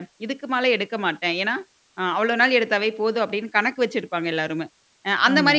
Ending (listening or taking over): listening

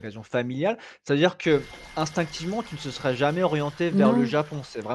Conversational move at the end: listening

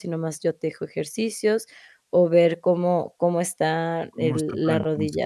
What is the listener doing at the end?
taking over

